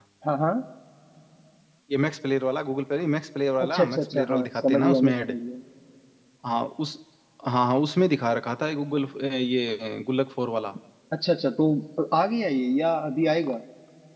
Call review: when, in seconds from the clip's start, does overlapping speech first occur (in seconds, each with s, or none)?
3.6 s